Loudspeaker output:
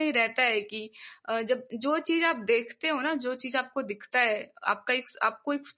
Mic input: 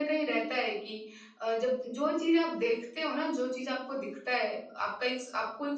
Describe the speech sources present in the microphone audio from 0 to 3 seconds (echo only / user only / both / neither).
echo only